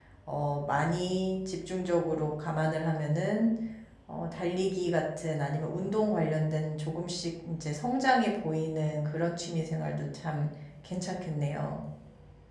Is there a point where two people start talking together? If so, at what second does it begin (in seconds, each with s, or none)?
none